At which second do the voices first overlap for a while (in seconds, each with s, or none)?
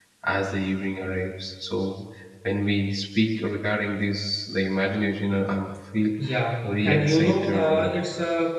6.6 s